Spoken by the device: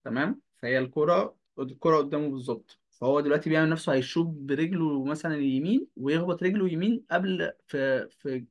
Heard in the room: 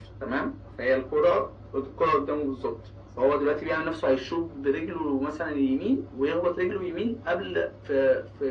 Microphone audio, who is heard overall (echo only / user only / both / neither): echo only